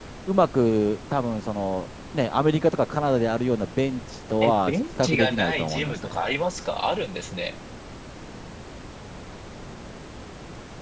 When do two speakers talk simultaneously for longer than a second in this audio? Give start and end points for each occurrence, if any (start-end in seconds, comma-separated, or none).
4.4-6.2